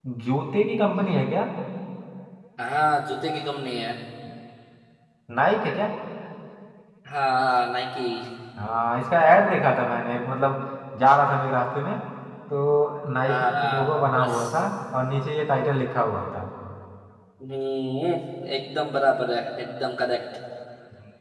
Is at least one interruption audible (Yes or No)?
Yes